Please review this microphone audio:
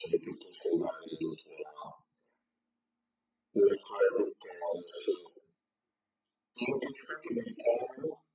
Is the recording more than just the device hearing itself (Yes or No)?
No